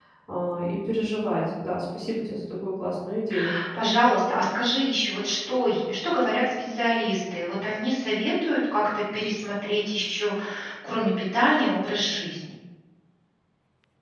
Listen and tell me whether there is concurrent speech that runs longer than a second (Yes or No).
No